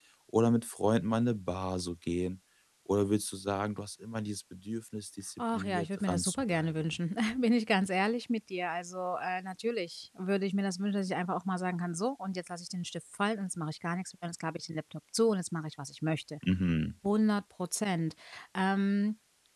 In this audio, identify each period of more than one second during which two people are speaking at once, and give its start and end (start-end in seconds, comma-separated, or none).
5.4-6.8